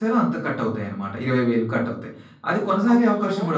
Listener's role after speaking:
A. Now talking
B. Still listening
B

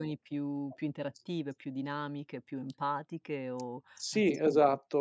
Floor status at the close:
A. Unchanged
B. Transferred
B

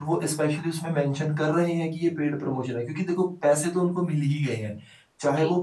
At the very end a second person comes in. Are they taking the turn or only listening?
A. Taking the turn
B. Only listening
B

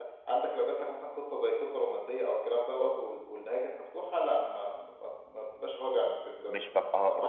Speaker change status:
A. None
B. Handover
B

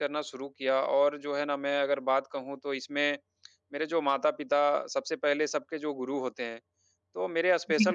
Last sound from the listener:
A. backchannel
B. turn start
A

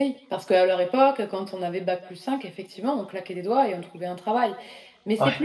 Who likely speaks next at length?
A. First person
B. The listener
A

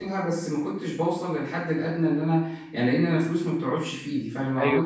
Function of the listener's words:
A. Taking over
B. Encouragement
A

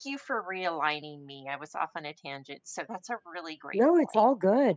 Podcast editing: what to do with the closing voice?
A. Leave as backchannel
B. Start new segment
B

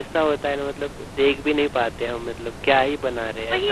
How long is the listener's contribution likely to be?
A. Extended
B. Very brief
A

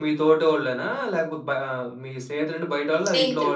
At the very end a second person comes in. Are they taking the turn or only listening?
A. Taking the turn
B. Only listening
A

